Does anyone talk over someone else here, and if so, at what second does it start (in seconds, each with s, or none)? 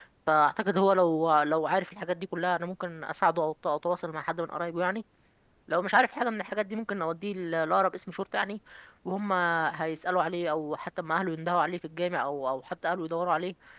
none